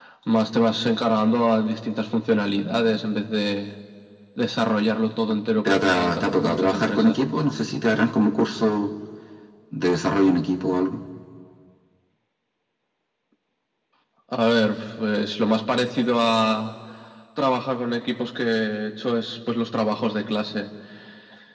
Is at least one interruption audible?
Yes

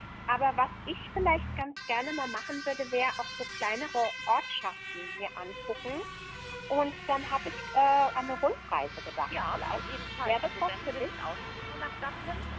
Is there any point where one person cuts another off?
Yes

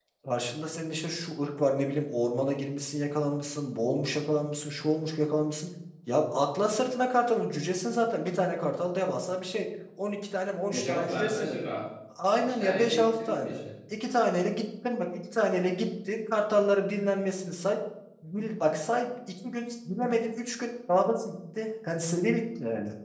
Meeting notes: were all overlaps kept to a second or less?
No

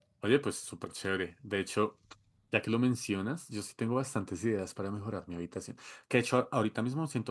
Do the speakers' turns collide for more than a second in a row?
No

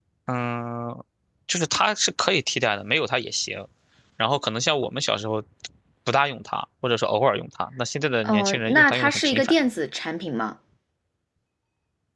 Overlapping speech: Yes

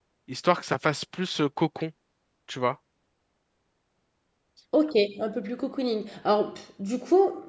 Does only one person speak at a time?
Yes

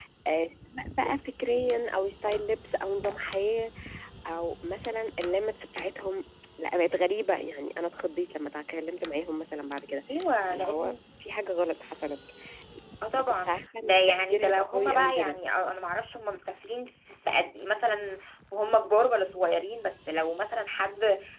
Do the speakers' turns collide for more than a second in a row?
Yes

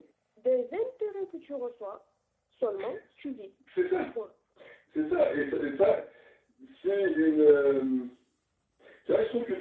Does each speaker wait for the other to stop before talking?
Yes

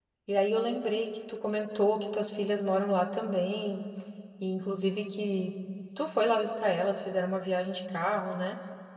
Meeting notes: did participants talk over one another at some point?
No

